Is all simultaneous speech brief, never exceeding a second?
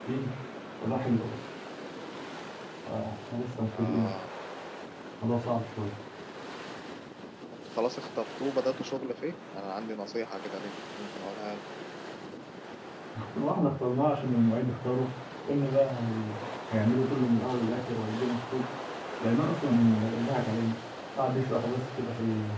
Yes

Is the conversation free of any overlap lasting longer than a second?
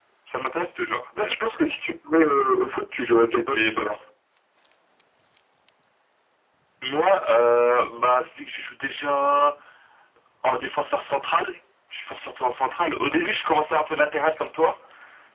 Yes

